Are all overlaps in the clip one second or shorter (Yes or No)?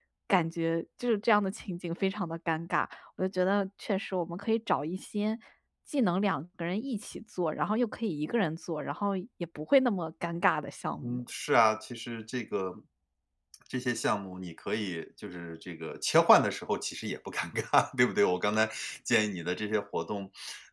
Yes